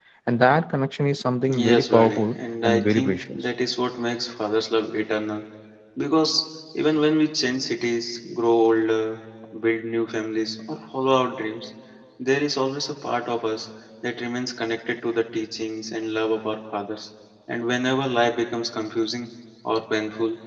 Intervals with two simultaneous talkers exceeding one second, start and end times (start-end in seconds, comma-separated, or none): 1.6-3.4